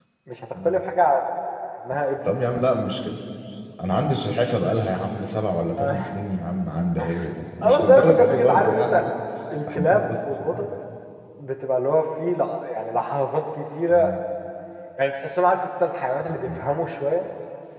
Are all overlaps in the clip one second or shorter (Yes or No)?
No